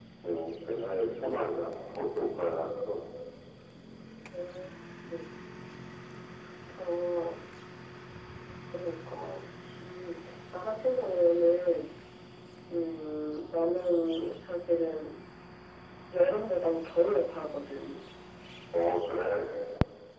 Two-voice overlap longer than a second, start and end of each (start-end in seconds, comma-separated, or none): none